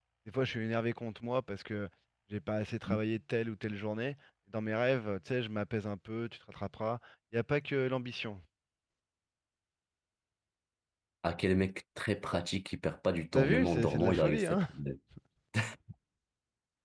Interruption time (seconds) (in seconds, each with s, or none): 13.3 s